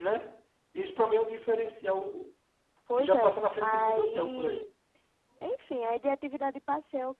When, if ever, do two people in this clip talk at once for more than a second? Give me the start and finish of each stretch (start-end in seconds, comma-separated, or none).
2.9-4.7